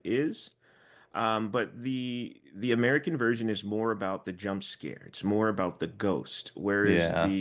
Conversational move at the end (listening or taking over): listening